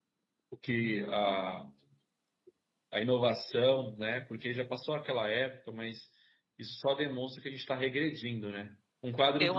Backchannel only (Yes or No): Yes